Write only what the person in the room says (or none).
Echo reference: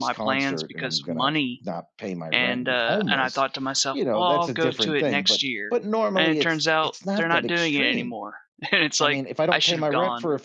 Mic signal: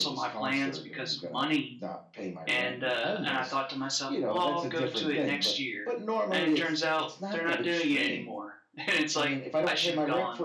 none